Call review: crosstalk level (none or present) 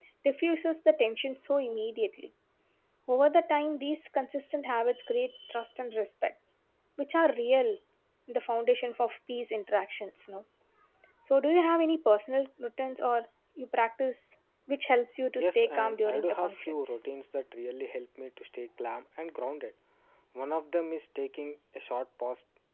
present